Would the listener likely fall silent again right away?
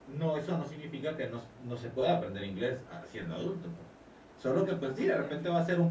Yes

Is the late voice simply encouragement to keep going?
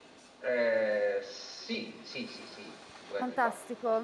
No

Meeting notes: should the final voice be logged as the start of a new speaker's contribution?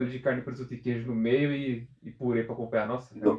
Yes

